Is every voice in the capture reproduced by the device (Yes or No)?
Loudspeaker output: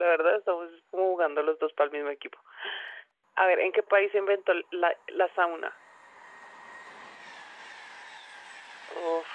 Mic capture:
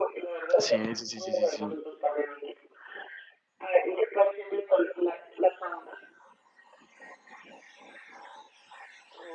No